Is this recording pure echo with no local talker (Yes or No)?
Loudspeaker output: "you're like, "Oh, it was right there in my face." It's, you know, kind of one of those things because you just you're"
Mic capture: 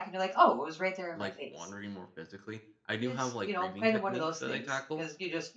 No